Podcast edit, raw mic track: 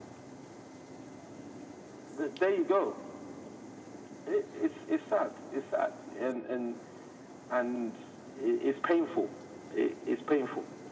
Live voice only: none

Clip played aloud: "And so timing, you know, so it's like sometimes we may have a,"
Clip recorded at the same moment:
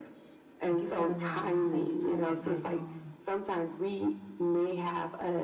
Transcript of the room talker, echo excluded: Thank you for the rain. Thank you for what you're doing.

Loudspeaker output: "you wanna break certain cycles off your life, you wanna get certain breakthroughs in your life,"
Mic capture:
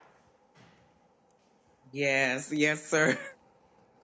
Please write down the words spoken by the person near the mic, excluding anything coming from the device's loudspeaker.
Yes, yes, sir.

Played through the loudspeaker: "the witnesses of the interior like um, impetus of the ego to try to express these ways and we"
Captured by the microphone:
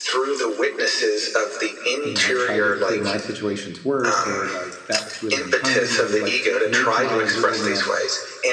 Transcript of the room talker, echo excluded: you know try to say my situation's worse or like that was really unkind to me or like make my littleness

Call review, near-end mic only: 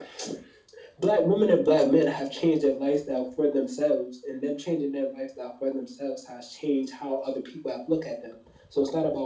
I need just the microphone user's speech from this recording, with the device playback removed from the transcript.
none

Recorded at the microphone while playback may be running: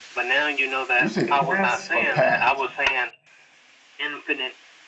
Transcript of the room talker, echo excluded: you say past or path?

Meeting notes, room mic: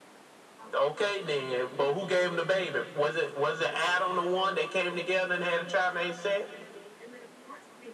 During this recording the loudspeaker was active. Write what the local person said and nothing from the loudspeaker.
none

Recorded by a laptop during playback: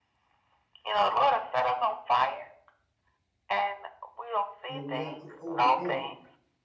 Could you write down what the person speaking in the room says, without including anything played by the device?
You know, we have to overcome.

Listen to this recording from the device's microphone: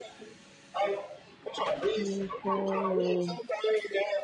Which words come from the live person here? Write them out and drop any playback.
three, four,

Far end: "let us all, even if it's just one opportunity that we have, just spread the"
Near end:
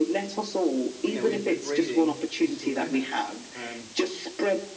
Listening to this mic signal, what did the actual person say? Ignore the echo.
we know we, we're breeding digital nomads. Um,

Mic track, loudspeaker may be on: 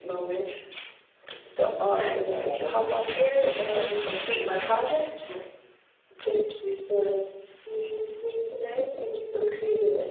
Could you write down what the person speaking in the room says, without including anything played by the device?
So uh, what, what it actually makes is that

